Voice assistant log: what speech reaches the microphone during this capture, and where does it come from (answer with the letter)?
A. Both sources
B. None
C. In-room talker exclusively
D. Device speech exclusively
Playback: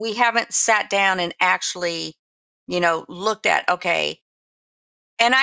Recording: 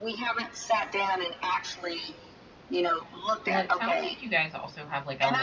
A